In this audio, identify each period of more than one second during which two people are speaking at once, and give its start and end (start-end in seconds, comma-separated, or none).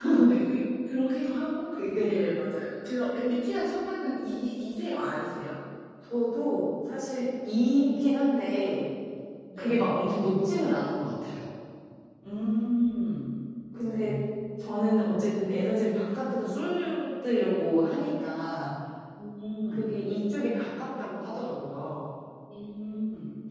none